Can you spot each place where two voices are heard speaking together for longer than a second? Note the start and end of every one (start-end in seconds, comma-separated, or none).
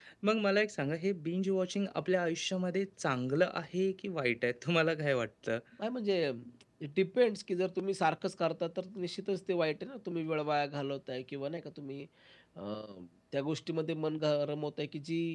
none